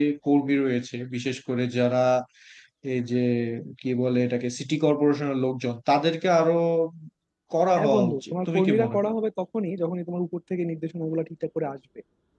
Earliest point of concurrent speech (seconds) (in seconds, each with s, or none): 7.8 s